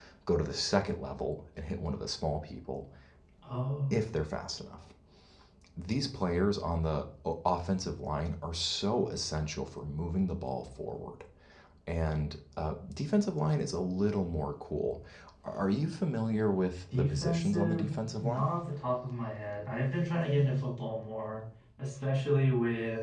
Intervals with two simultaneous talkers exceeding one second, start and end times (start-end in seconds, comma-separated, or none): 16.9-18.5